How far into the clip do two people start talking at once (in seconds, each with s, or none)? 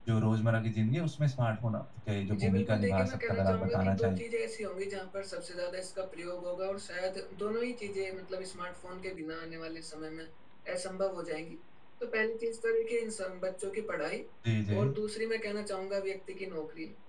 2.3 s